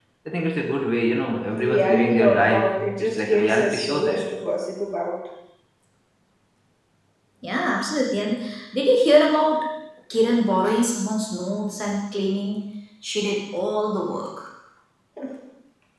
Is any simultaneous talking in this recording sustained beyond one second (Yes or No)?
Yes